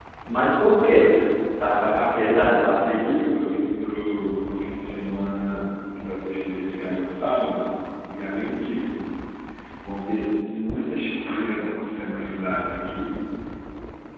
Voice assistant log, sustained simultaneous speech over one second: present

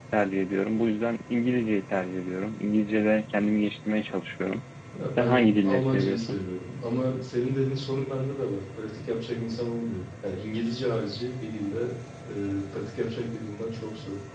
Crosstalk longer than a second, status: present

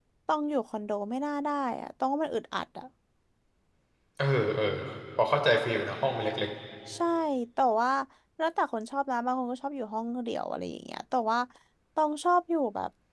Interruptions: none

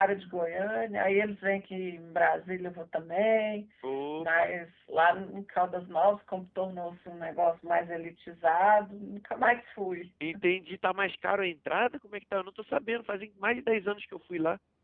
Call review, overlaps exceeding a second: none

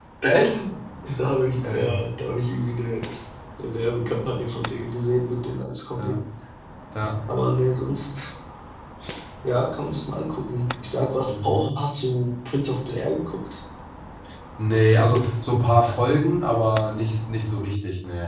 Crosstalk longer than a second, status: none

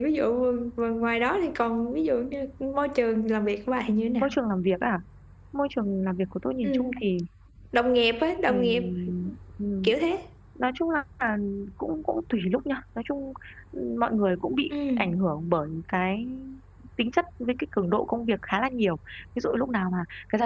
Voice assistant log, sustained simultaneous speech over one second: none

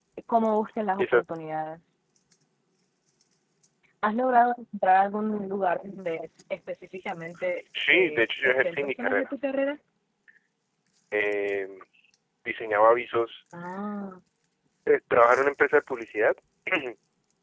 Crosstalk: present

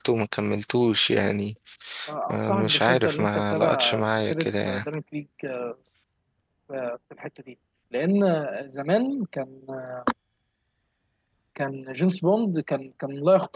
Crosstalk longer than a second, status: present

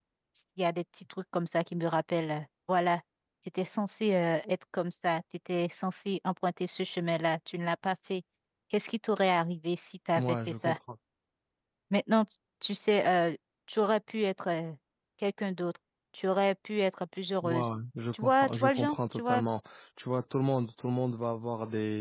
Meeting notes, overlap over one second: present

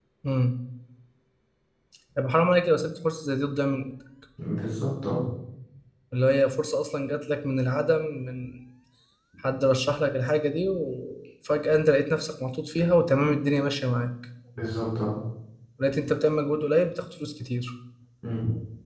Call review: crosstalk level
none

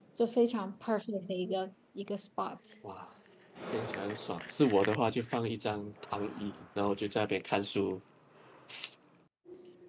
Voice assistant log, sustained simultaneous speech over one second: none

